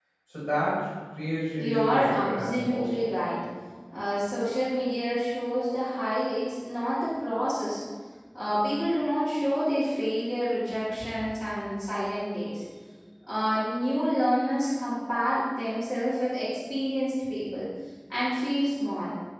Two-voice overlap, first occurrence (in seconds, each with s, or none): 1.6 s